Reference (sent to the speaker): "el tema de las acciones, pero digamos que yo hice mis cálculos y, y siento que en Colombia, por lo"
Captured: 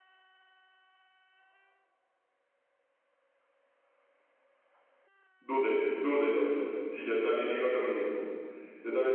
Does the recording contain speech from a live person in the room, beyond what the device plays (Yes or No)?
Yes